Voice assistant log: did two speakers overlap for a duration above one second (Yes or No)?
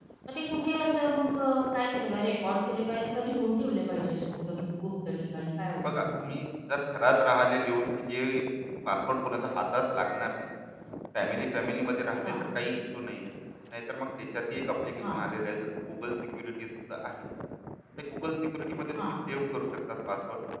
No